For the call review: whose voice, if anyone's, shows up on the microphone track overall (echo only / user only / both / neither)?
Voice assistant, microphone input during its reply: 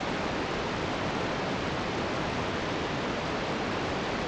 neither